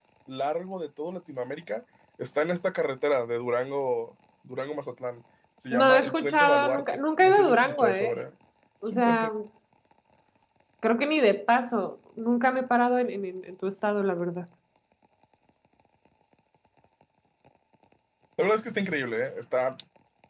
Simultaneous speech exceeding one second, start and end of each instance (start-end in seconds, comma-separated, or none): 5.7-8.1